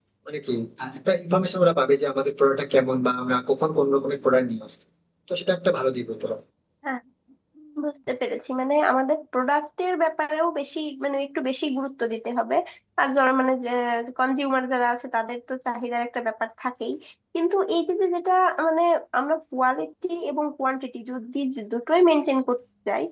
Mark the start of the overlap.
none

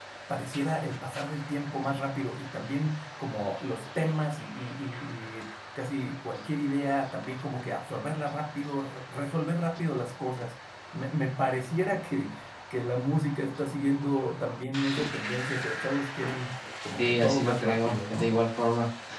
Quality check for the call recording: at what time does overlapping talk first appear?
17.0 s

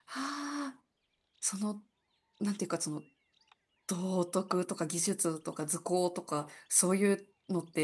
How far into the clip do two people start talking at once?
none

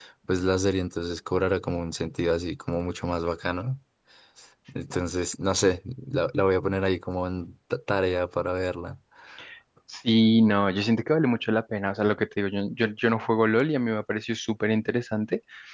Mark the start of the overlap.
none

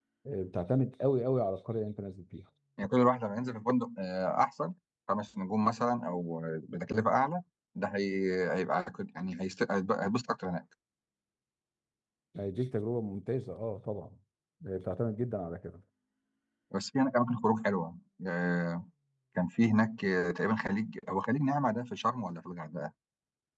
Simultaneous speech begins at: none

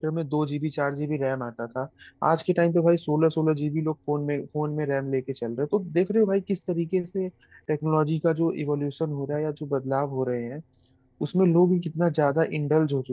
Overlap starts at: none

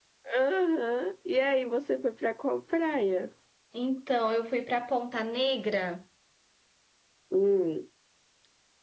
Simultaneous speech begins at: none

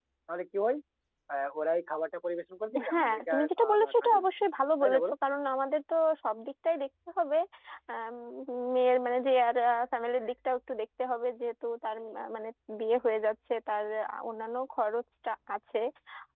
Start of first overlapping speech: 2.7 s

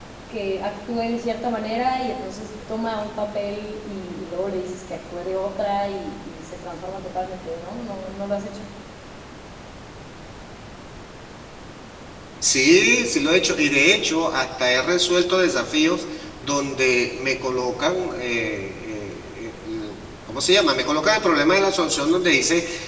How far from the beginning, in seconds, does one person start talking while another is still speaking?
none

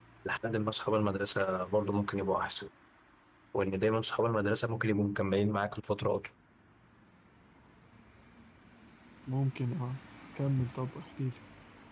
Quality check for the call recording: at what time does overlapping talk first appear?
none

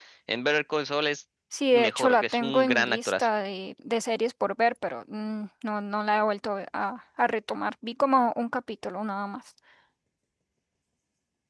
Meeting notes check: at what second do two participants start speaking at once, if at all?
1.7 s

